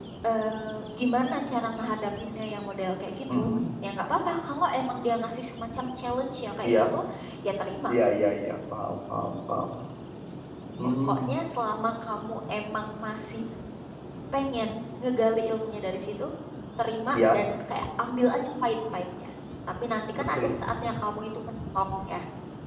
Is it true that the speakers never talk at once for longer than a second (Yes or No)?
Yes